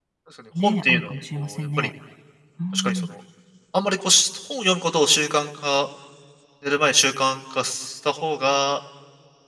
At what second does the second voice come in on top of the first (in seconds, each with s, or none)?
0.6 s